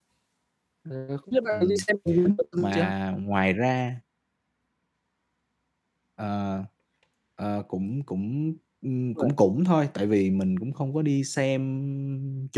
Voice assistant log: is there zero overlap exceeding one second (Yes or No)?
Yes